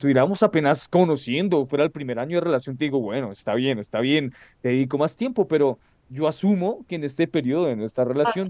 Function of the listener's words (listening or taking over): listening